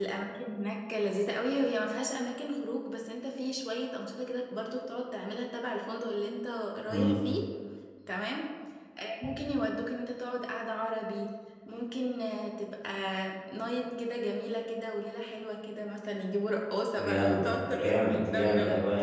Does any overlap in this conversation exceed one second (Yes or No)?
Yes